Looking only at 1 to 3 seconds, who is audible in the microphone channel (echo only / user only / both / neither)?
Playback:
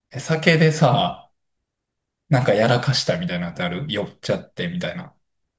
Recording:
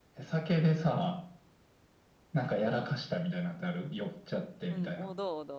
echo only